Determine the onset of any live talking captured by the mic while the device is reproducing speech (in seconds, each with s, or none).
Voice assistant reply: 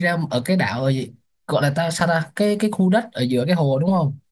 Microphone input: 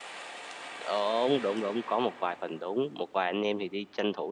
0.9 s